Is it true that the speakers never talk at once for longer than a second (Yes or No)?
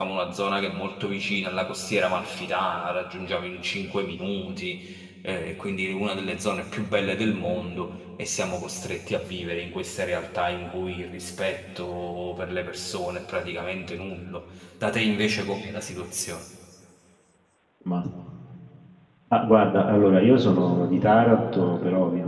Yes